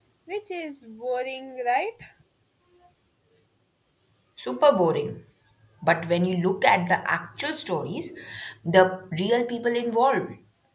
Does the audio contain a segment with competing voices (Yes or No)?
No